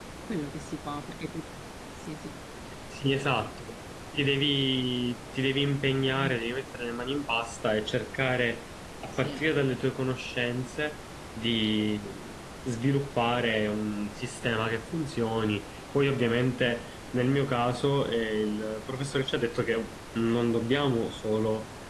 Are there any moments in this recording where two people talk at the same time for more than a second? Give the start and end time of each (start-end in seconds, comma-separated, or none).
none